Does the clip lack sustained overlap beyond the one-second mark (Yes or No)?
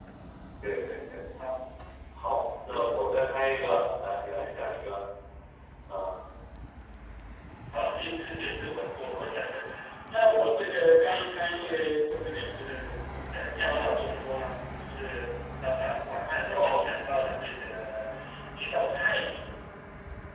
Yes